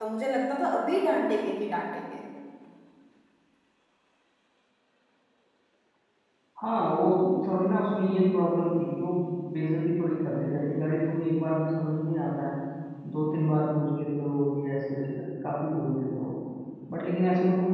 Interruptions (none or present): none